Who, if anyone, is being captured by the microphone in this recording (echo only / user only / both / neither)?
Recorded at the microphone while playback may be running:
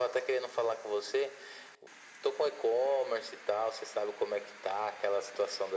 echo only